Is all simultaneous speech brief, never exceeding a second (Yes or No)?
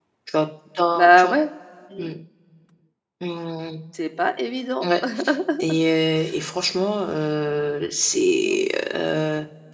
Yes